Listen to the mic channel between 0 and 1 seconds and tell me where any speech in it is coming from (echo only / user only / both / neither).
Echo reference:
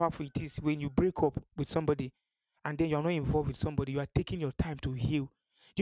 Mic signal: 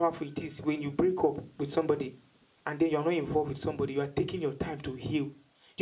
echo only